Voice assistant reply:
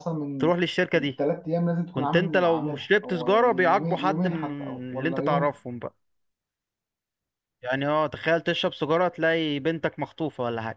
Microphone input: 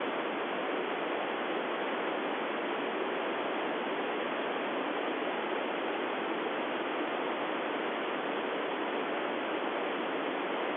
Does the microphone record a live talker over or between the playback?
No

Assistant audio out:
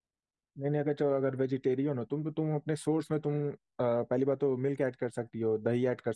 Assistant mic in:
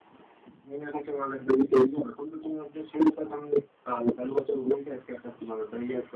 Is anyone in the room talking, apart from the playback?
No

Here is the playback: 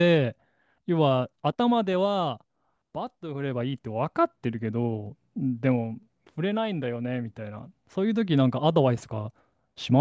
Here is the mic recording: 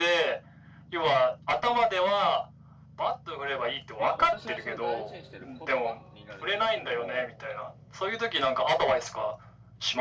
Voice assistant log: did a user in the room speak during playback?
Yes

